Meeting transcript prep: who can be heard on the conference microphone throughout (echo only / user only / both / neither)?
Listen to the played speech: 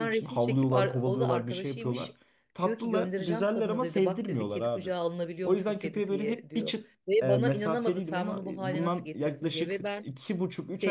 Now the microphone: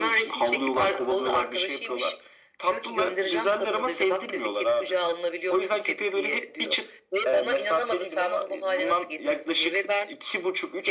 echo only